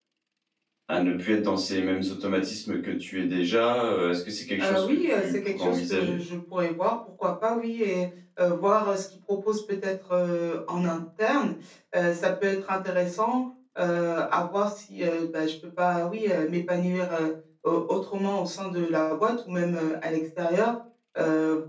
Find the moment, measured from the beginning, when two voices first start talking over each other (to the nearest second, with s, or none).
5 s